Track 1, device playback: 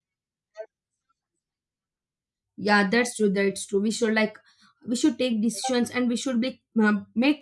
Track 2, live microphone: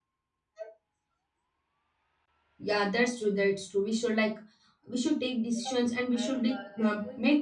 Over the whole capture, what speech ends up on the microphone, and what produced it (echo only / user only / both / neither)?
both